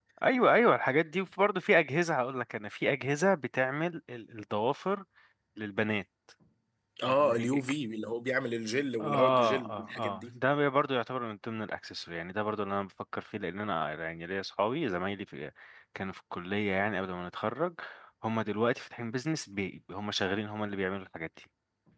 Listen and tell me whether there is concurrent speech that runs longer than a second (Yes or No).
Yes